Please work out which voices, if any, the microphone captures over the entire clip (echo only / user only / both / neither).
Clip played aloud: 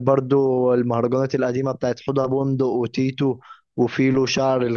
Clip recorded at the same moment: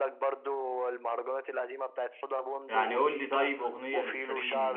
both